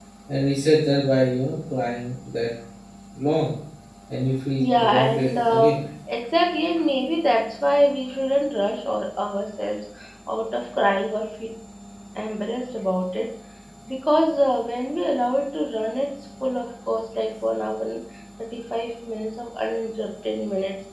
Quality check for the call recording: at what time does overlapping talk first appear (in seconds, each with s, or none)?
4.6 s